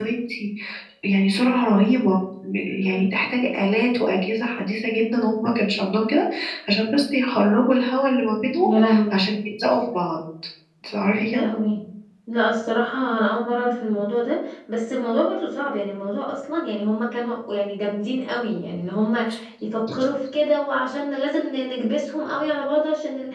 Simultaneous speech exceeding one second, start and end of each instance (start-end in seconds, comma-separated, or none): none